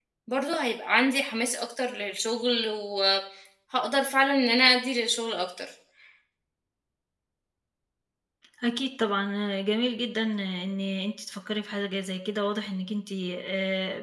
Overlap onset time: none

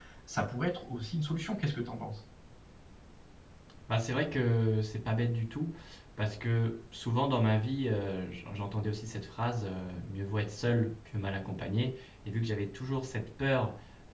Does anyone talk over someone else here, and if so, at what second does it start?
none

